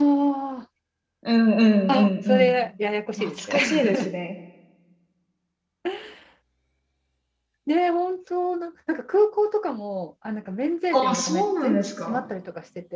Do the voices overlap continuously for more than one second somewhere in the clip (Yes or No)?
Yes